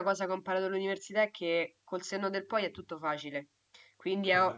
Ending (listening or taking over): listening